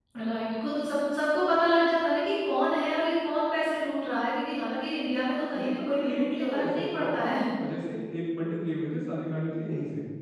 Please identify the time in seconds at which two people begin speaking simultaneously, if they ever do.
5.5 s

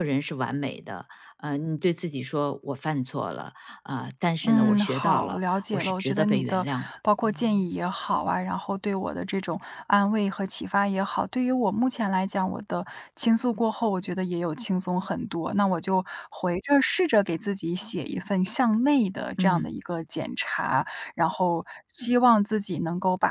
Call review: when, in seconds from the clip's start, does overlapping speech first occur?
4.5 s

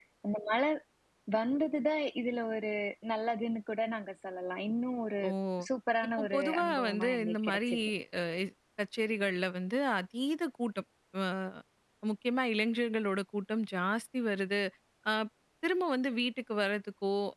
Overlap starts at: 6.2 s

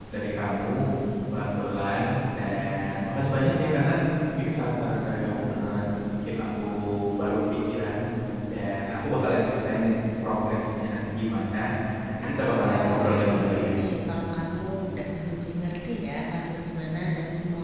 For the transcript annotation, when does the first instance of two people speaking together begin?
12.2 s

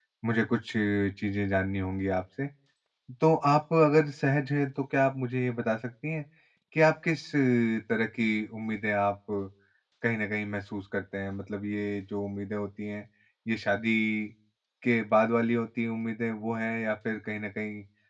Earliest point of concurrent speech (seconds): none

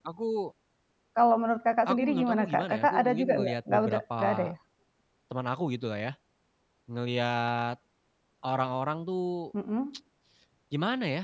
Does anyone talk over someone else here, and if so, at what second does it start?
1.9 s

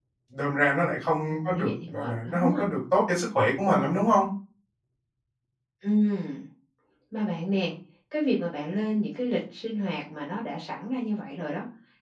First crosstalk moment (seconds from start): 1.3 s

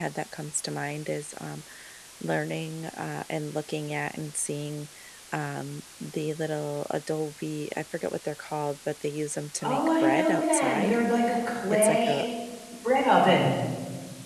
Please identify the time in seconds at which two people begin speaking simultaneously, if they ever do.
9.6 s

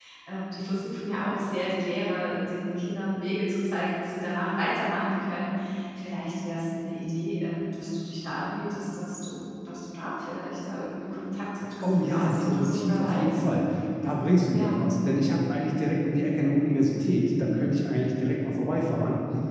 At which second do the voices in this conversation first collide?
11.8 s

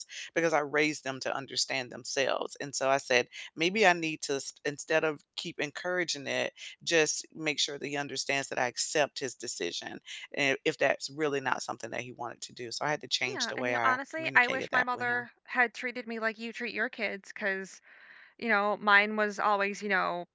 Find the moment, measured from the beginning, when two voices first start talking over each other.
13.3 s

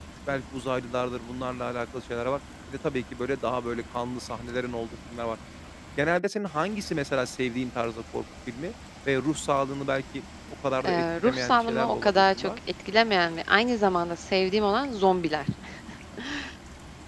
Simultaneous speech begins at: 10.8 s

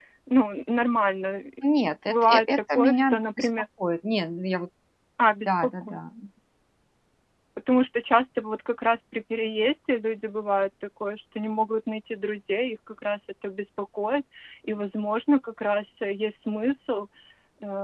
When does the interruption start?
2.1 s

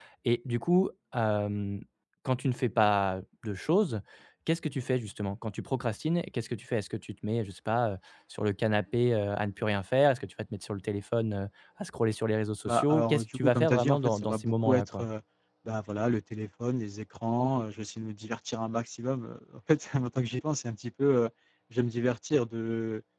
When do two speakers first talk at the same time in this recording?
12.6 s

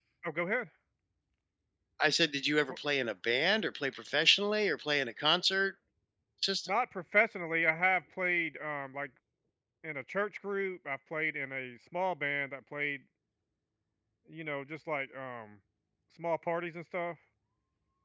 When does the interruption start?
none

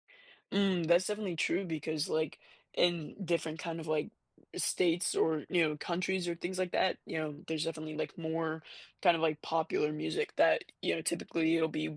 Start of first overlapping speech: none

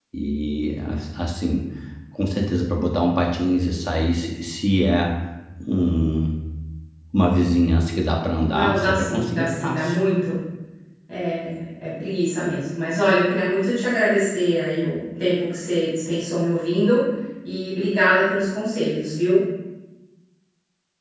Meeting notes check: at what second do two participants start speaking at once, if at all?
8.5 s

